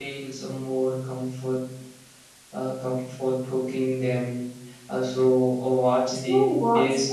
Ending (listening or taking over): taking over